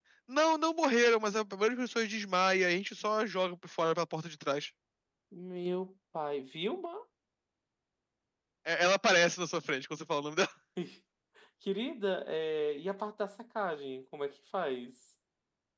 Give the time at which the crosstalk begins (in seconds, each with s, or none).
none